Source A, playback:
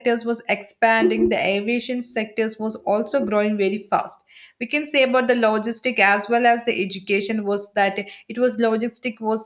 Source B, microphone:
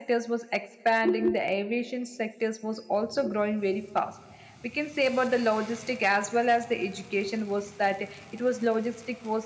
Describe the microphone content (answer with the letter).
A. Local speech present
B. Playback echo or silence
B